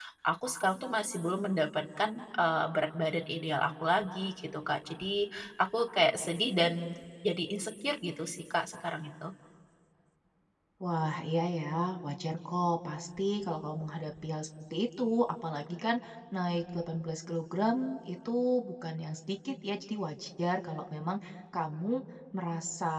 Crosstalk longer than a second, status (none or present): none